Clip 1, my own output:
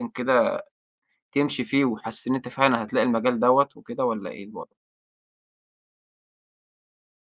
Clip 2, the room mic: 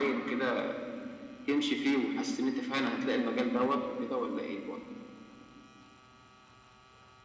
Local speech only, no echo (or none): none